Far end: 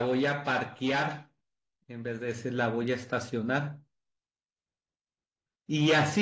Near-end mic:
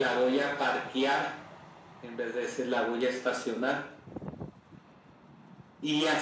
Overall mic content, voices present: echo only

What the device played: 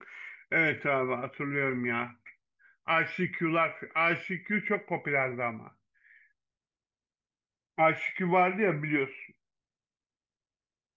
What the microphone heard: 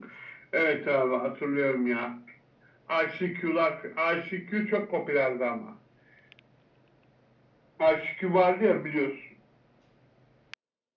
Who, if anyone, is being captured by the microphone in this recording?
echo only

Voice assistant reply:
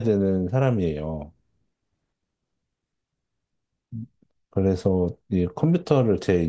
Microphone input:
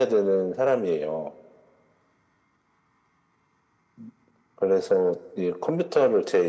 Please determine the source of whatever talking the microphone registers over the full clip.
echo only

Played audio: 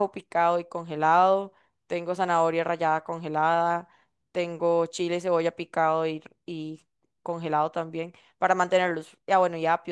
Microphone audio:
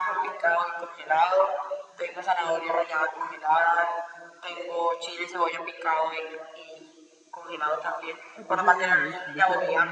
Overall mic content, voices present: both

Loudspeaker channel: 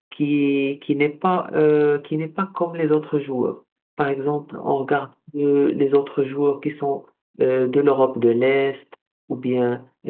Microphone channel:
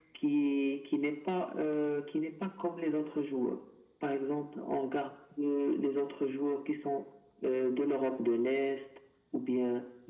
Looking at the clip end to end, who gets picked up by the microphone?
echo only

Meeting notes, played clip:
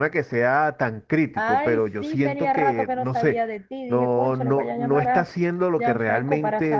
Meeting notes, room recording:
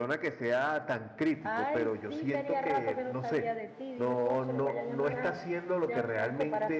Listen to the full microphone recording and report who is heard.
echo only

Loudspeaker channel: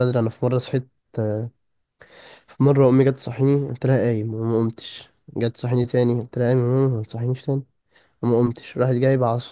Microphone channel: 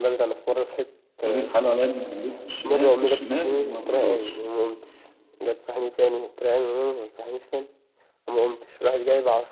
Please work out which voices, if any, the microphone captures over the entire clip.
both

